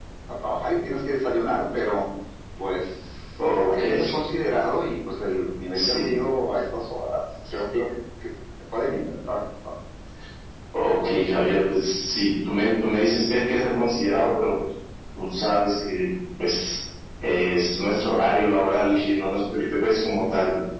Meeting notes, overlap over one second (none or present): none